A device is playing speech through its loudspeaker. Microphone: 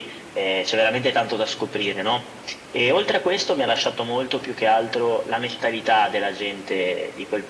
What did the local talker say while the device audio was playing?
none

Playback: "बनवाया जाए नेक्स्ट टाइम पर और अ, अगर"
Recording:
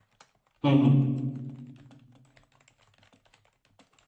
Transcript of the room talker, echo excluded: हम्म हम्म

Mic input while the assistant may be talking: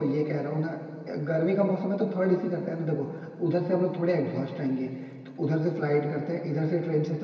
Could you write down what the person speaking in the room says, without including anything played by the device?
none

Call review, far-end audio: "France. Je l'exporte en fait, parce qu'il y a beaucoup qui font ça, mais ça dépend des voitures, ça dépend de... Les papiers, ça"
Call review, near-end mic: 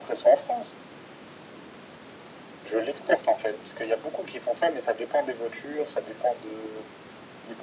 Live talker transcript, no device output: none

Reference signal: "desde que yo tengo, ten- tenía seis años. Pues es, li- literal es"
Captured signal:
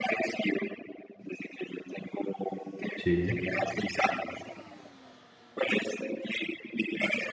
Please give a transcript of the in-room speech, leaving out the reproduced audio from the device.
sí,

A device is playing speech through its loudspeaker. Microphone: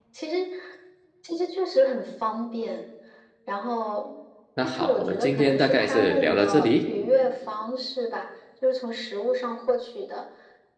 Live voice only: 那好，我们今天大概是聊到这里，

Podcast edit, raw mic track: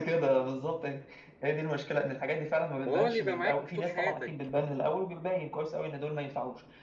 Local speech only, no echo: وهو اللي يبقى معاك طول حياتك

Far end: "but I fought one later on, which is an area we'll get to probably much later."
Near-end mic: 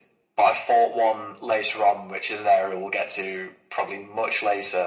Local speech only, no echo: none

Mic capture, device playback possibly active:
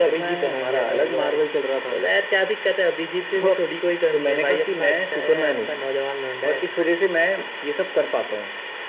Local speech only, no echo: अच्छा

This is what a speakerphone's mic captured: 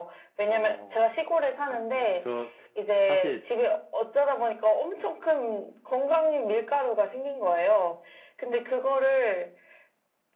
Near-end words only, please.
어, 아, 네요. 저 사실

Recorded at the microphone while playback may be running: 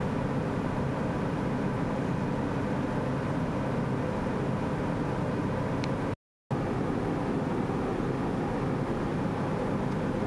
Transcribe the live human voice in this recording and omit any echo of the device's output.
none

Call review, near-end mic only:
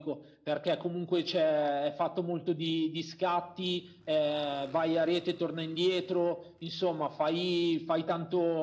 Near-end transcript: none

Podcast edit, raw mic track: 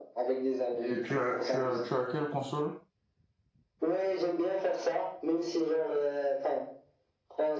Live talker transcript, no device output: Et tu as, tu as, tu as quelle console?

